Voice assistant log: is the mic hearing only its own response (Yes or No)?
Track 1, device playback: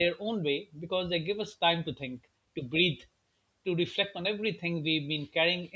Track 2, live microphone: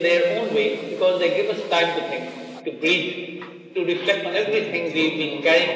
No